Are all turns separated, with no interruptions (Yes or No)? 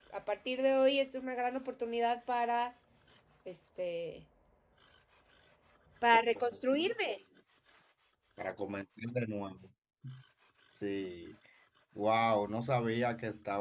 Yes